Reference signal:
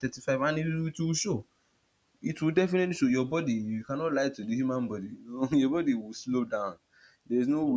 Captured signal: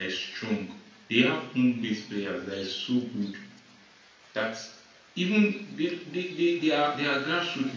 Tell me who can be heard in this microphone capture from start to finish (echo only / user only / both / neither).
user only